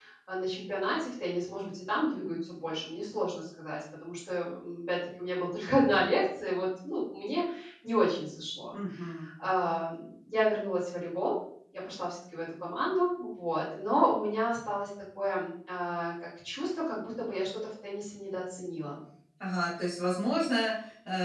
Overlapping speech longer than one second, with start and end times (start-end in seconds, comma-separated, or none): none